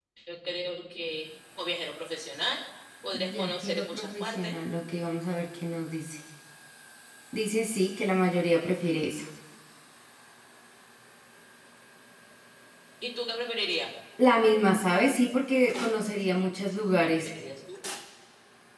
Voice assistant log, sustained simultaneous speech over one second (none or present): present